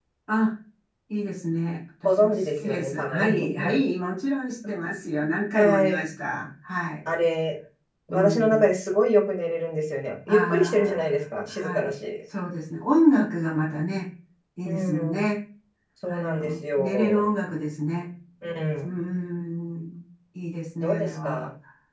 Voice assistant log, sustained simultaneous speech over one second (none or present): present